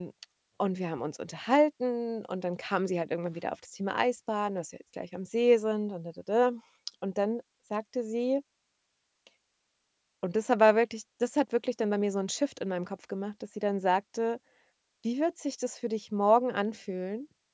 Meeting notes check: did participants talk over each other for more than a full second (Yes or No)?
No